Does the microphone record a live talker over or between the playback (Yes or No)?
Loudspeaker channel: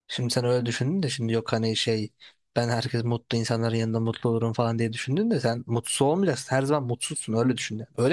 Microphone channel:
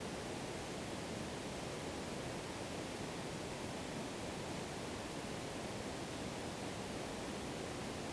No